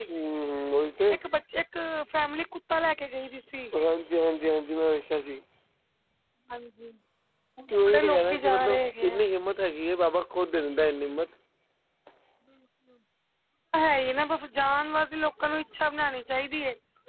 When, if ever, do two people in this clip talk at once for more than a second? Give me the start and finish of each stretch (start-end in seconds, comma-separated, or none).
7.7-9.2